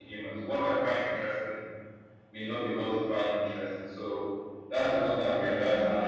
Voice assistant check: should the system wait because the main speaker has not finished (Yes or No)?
Yes